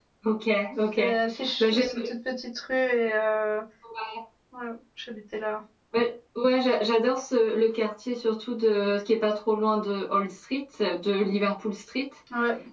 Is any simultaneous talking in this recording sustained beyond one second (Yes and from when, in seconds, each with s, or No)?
No